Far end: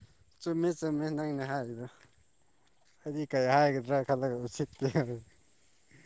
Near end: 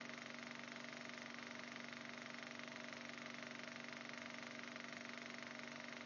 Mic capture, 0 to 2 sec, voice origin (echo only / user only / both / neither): neither